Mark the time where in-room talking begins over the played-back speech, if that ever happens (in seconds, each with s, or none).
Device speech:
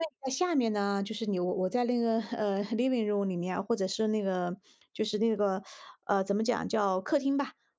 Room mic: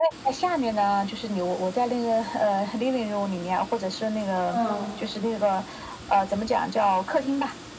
4.5 s